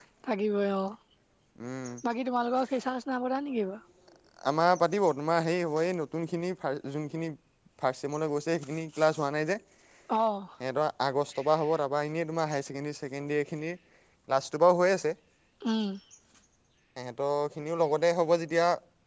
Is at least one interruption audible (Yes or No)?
No